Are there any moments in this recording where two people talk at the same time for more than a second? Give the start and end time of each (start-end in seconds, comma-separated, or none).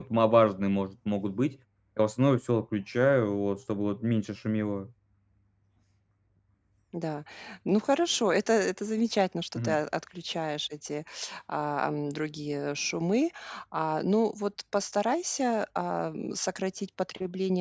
none